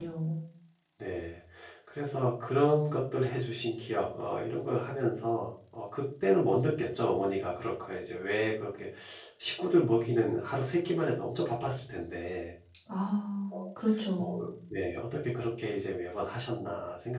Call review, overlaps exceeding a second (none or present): none